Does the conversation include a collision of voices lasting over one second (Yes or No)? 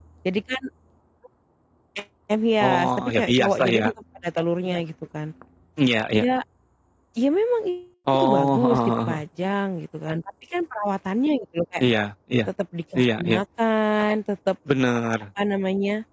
Yes